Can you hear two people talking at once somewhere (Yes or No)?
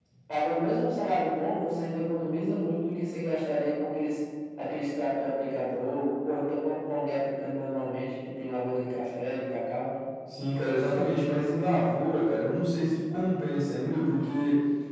No